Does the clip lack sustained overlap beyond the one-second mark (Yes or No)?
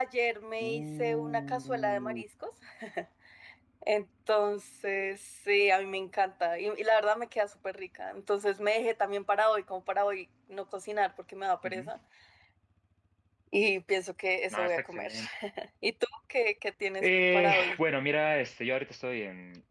No